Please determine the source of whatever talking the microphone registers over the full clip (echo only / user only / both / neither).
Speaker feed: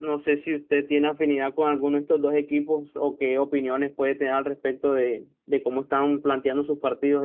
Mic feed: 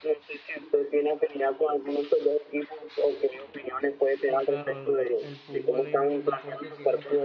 both